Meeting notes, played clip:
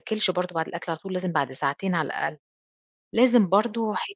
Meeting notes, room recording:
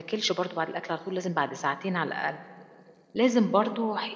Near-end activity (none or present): none